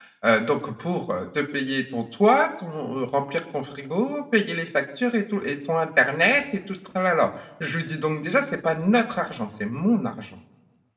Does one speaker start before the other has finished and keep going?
No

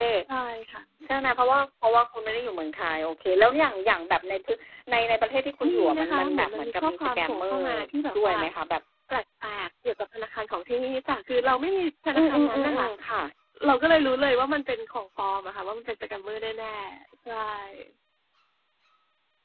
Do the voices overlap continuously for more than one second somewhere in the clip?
Yes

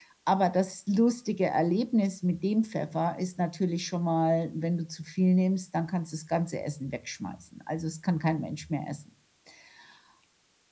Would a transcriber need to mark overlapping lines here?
No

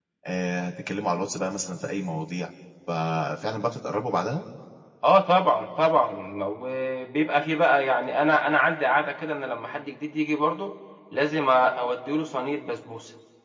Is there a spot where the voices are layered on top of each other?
No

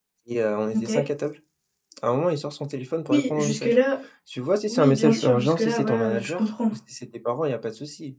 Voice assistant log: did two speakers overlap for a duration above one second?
Yes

